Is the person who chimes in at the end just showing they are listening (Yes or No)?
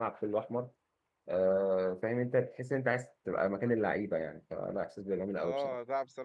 No